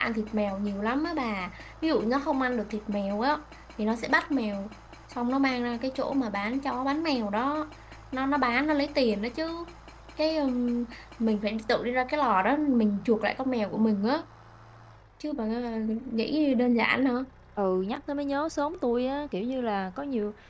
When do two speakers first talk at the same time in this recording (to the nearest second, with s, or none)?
none